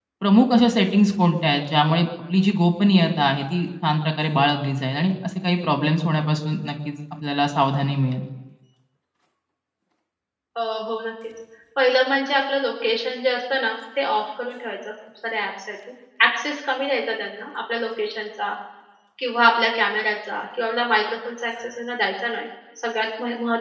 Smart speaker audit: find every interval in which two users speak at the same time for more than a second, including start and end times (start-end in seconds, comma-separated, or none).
none